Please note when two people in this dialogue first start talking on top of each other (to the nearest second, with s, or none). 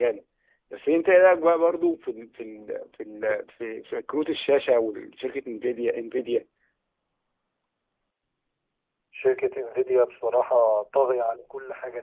none